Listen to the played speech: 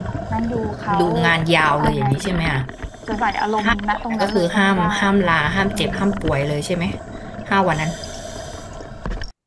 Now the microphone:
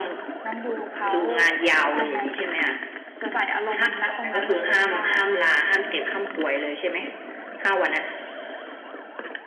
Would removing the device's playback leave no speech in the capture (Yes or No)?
Yes